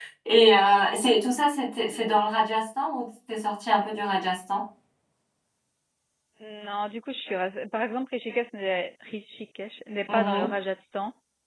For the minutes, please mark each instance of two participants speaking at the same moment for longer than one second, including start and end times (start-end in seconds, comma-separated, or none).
none